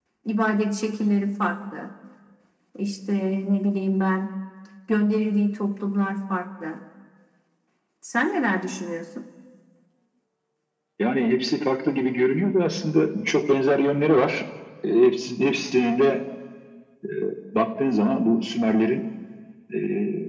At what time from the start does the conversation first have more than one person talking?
none

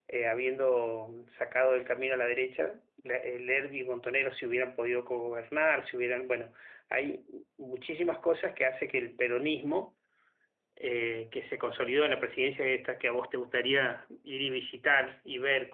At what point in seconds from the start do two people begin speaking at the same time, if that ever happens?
none

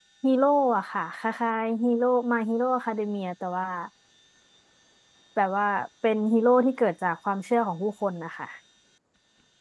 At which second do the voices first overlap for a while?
none

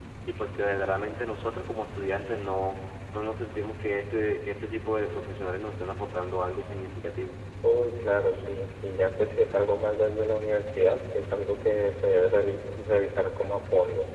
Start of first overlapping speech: none

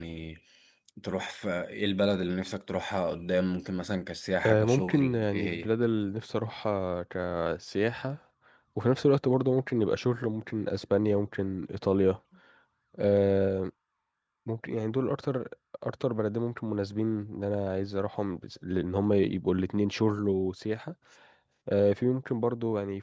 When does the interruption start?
4.4 s

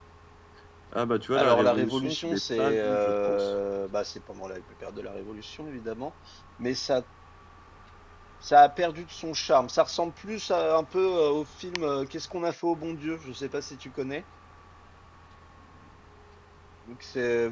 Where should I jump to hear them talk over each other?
1.4 s

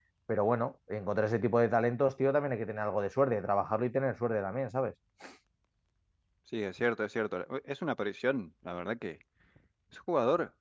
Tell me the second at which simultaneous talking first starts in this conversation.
none

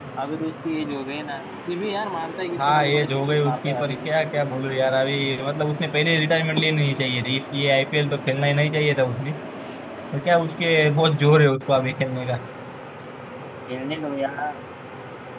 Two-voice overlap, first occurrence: 2.6 s

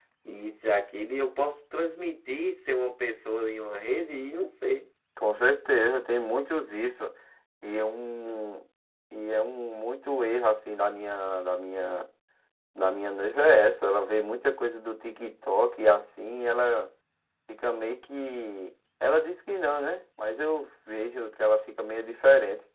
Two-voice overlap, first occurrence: none

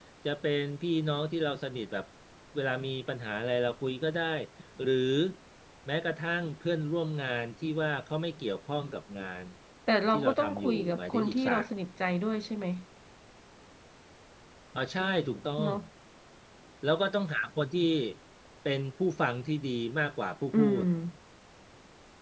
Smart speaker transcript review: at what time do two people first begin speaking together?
10.1 s

